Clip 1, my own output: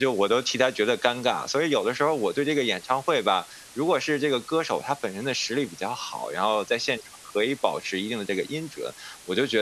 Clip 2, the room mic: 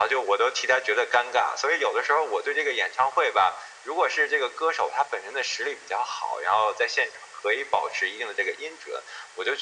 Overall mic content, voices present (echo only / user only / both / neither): echo only